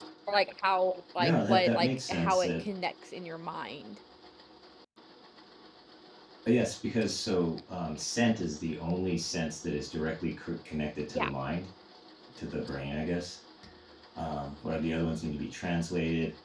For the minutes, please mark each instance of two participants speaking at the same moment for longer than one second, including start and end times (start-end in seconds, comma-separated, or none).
1.2-2.6